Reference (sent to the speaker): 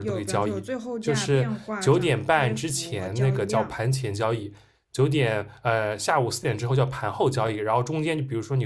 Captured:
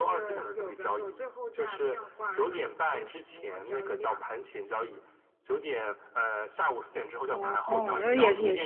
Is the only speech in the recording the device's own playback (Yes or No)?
No